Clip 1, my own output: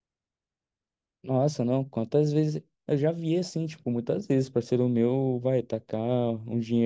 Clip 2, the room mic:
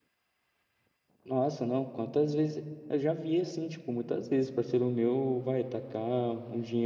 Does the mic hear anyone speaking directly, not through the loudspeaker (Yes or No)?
No